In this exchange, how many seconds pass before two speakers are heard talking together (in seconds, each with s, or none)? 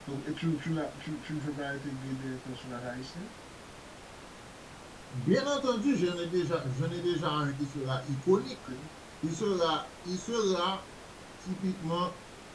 none